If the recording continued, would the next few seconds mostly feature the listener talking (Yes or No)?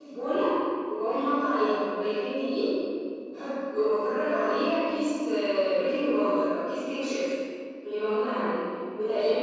No